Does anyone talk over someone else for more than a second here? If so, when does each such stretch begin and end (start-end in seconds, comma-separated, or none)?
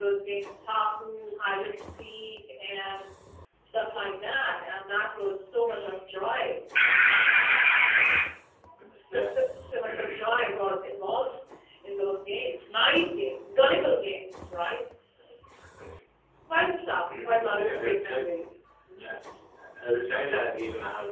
17.1-18.3